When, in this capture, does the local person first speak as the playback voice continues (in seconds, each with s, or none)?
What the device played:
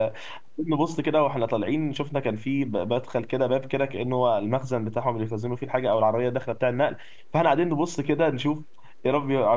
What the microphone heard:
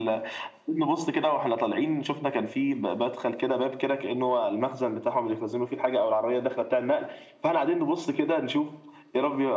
none